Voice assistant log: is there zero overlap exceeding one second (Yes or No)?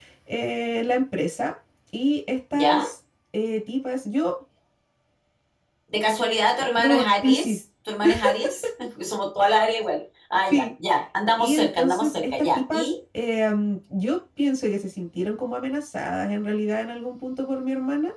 No